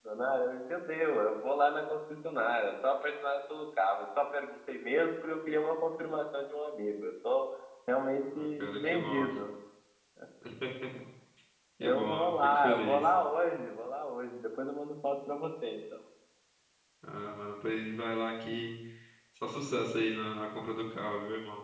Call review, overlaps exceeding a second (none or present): present